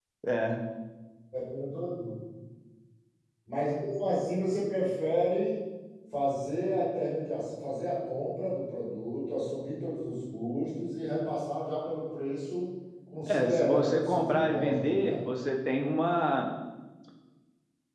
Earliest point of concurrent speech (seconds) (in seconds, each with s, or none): 13.3 s